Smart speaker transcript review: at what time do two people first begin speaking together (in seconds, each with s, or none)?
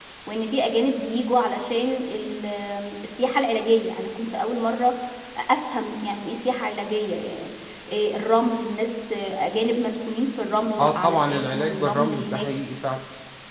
10.8 s